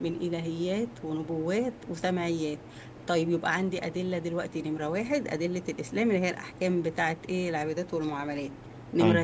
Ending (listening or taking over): listening